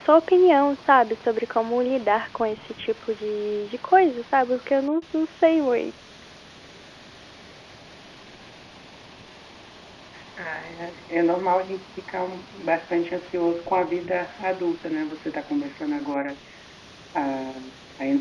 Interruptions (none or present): none